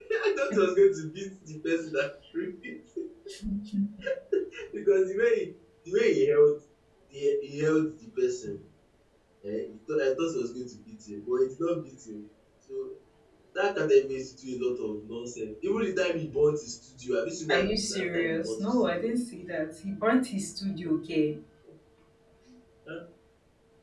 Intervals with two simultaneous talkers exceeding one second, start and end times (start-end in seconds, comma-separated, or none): 17.5-19.1